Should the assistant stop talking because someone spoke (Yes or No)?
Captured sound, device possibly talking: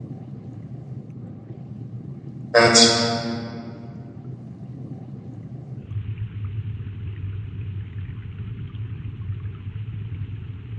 Yes